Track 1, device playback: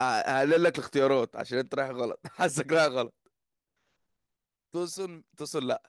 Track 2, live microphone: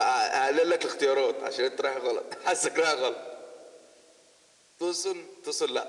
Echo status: present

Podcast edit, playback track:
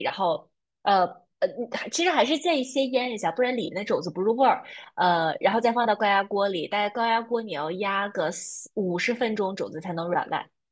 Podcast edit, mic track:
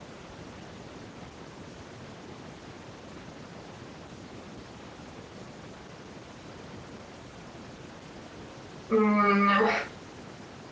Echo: none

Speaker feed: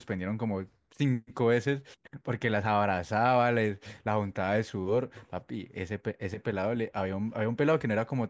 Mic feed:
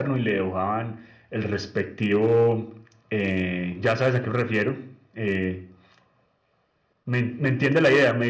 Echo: none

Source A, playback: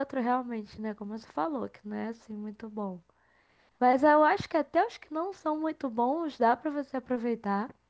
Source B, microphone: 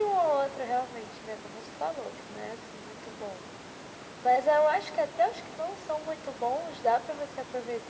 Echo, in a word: present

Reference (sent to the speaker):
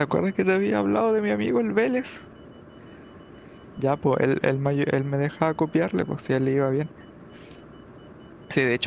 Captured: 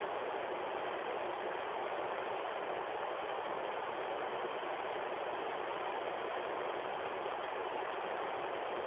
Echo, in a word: none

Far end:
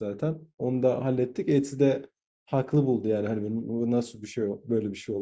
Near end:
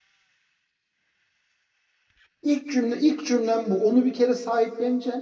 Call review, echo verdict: none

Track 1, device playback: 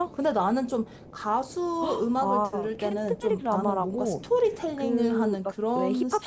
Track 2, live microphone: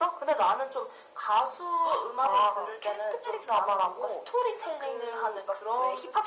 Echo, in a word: present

